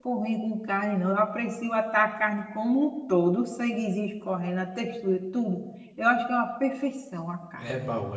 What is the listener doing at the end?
taking over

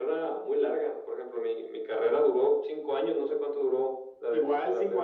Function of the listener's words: taking over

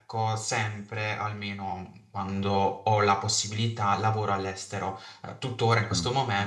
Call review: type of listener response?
listening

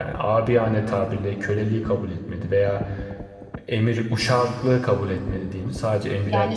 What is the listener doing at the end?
taking over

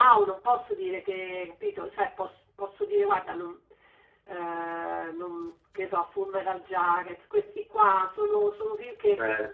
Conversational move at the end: listening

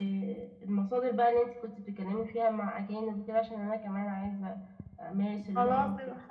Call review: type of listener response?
taking over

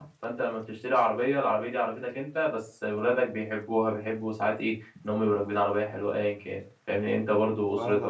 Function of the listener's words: listening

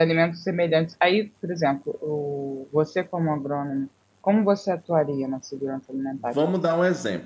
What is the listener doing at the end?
taking over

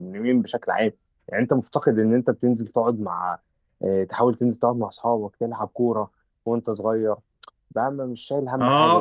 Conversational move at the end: taking over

